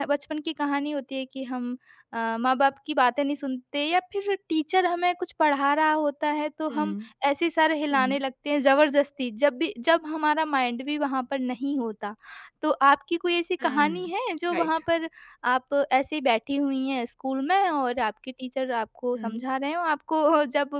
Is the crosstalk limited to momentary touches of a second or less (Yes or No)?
Yes